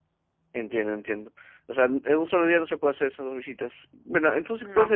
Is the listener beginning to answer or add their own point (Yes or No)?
No